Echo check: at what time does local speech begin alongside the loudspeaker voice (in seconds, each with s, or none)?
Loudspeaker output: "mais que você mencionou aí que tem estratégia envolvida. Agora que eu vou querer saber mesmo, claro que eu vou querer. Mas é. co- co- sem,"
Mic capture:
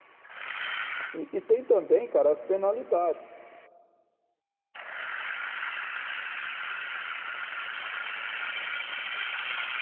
1.1 s